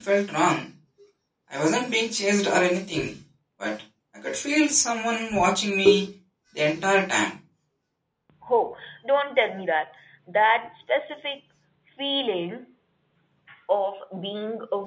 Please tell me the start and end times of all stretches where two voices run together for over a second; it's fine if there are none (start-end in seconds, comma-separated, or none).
none